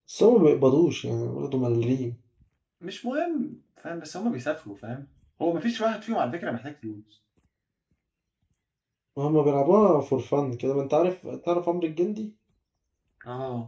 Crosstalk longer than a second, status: none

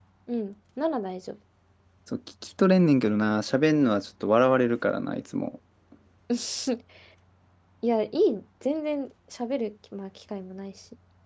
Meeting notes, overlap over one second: none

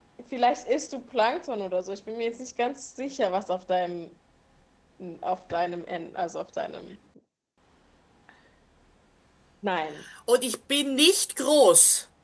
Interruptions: none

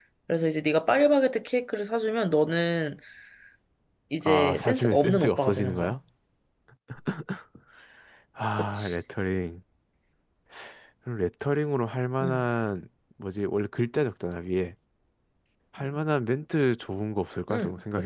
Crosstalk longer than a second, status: present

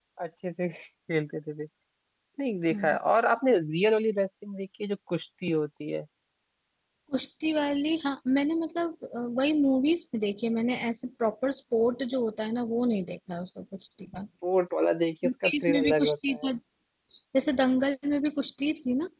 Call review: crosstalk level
present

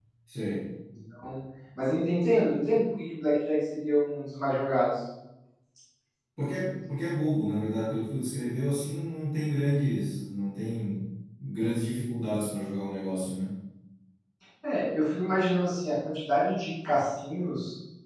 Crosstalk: none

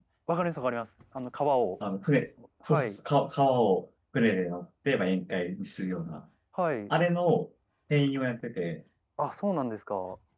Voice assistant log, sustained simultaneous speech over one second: none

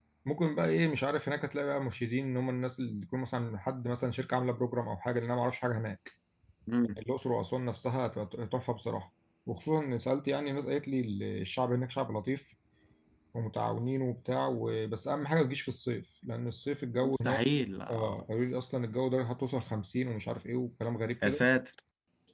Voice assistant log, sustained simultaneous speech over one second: none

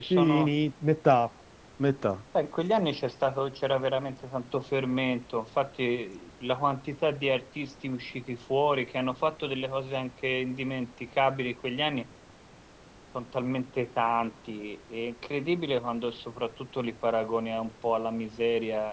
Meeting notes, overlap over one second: none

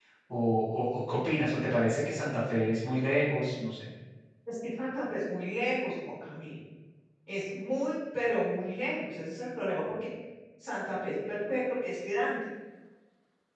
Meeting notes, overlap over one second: none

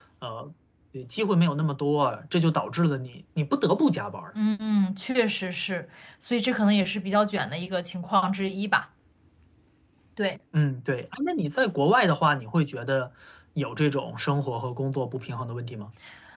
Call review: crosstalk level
none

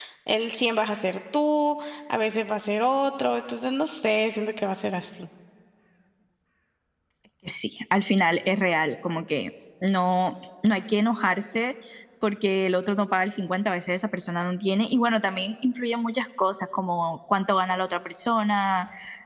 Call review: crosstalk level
none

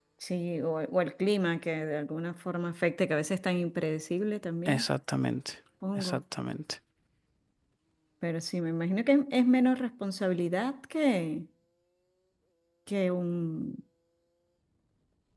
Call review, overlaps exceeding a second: none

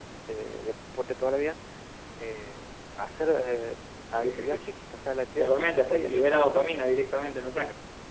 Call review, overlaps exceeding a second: present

